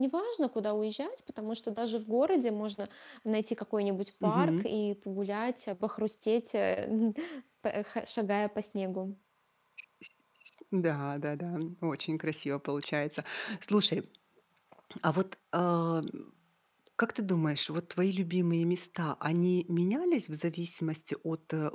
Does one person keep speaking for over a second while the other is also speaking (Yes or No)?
No